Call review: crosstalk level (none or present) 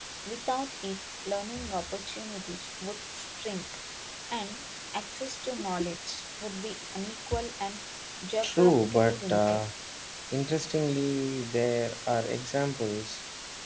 present